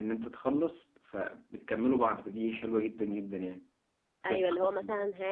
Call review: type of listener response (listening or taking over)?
taking over